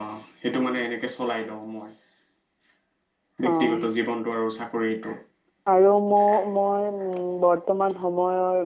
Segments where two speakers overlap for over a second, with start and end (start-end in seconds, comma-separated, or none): none